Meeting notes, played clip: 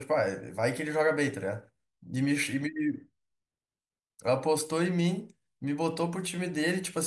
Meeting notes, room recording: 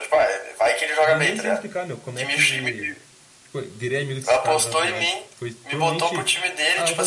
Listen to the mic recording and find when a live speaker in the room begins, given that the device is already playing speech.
1 s

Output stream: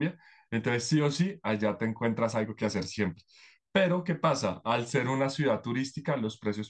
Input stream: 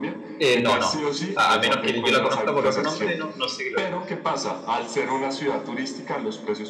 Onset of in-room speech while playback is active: 0 s

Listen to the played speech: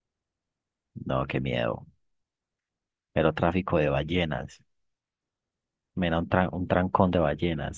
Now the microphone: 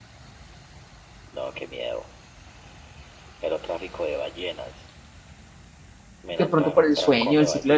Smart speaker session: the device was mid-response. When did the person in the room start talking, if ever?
6 s

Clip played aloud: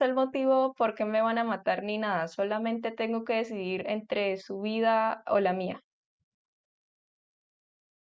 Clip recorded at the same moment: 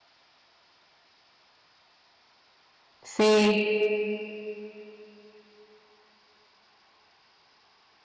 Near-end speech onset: 3 s

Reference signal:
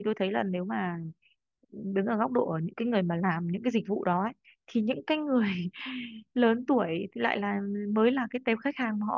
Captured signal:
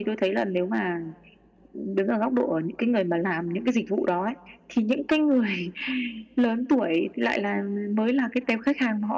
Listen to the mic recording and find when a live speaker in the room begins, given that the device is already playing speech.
none

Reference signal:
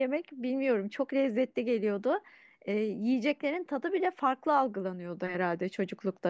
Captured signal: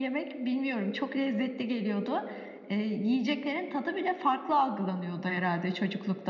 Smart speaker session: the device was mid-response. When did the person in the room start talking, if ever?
none

